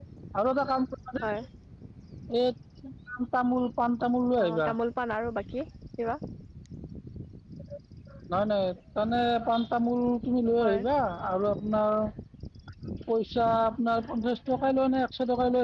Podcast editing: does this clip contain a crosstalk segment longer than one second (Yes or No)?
No